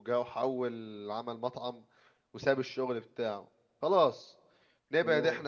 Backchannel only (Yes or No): Yes